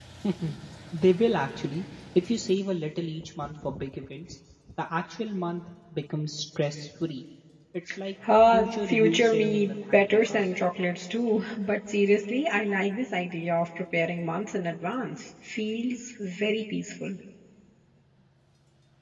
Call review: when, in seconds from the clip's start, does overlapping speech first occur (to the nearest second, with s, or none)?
9 s